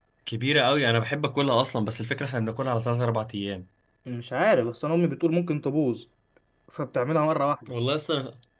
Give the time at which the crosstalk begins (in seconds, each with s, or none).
none